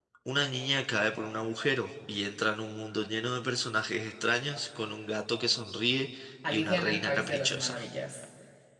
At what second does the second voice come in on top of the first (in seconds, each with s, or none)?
6.4 s